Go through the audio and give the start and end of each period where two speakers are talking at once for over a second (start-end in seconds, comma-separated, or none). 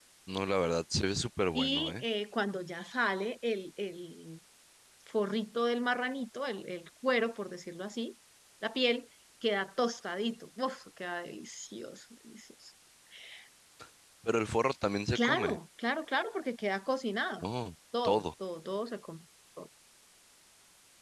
none